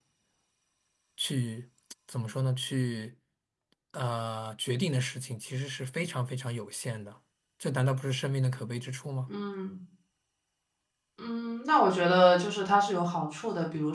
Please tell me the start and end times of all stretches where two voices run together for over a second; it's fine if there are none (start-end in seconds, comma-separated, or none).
none